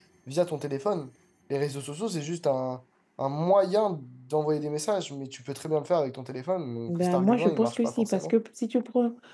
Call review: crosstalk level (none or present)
present